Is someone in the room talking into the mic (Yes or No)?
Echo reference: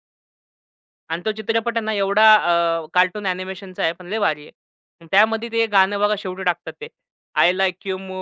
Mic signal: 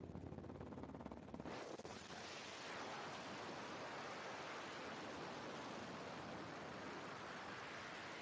No